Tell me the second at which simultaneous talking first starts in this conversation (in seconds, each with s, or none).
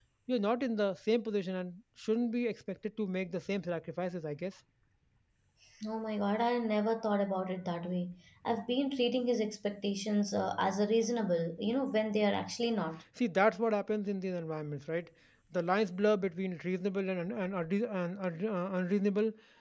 none